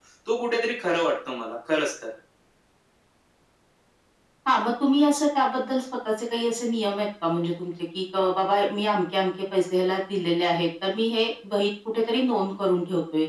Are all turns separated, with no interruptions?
Yes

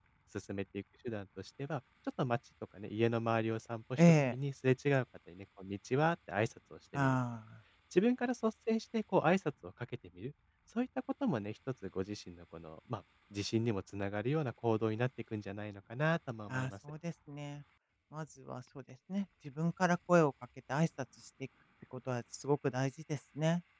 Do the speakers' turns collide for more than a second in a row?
No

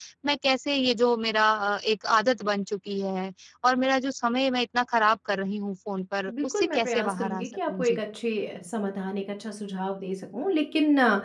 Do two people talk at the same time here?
Yes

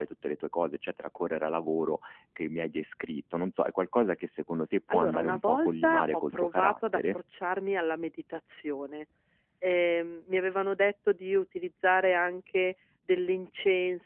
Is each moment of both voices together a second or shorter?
No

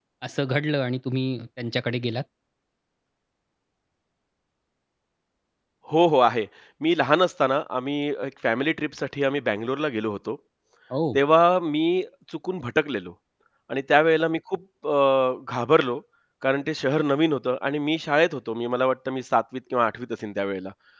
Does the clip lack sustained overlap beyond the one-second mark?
Yes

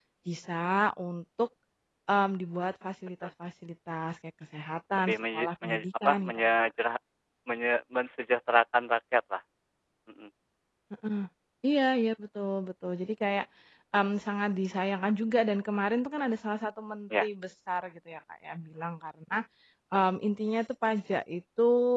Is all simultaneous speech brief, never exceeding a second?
No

